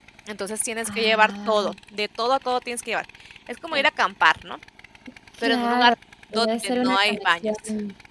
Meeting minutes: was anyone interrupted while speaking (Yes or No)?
Yes